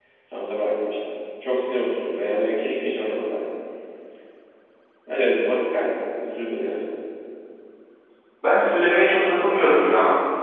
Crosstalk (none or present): none